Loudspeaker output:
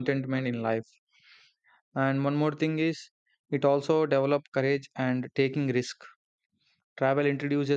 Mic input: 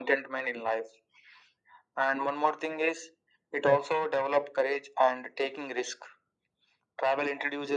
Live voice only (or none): none